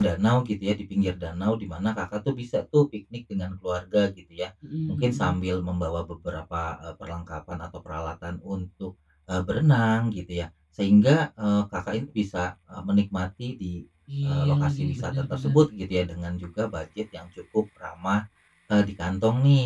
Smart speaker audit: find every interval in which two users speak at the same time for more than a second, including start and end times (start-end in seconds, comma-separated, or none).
14.2-15.6